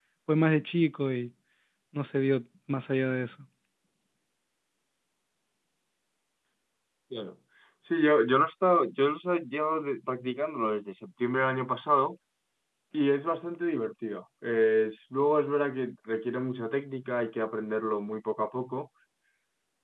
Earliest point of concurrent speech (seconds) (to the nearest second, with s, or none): none